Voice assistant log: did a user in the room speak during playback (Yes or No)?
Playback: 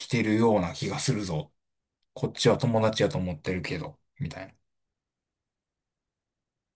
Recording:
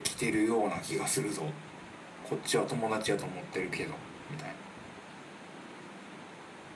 No